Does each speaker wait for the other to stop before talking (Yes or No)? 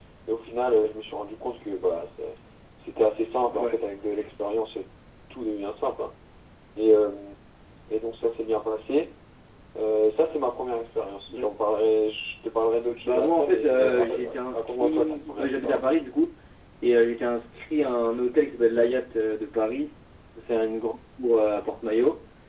No